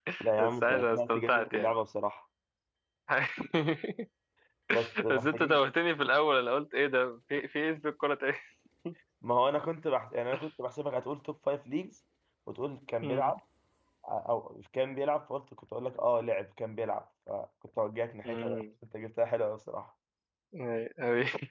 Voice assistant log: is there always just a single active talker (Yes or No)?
No